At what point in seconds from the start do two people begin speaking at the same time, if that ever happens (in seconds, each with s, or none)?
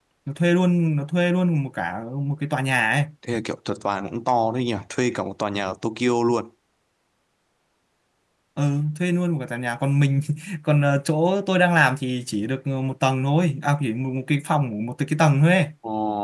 none